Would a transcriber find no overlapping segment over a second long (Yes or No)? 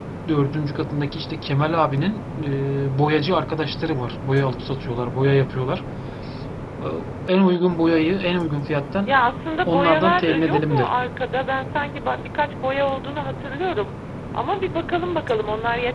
No